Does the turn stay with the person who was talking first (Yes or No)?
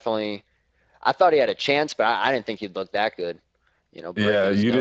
No